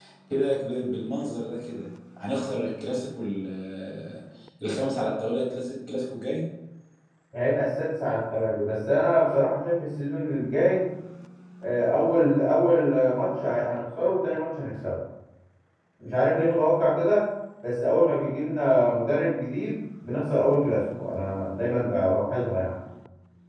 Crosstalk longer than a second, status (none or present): none